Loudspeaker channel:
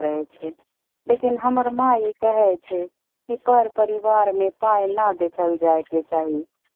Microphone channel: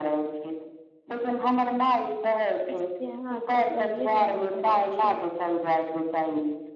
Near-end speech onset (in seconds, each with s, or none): 2.7 s